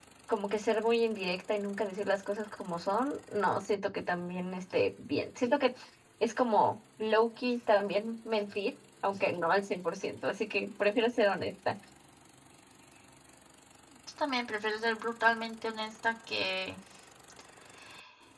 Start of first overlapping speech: none

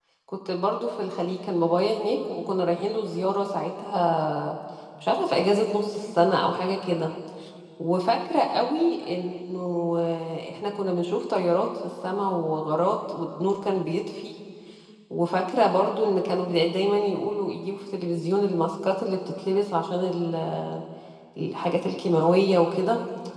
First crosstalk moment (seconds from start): none

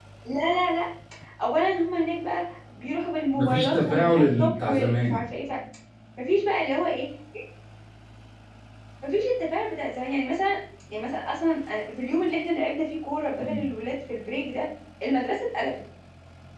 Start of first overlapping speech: 3.3 s

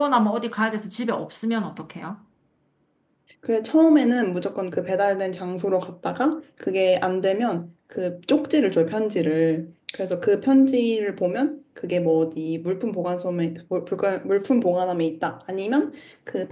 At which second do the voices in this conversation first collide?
none

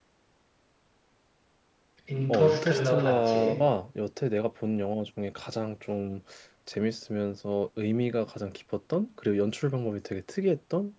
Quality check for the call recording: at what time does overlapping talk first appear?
2.3 s

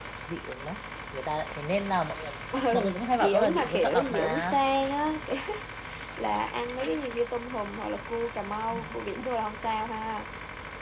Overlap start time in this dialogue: 2.7 s

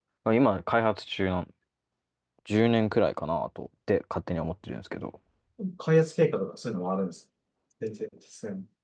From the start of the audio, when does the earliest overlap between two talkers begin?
none

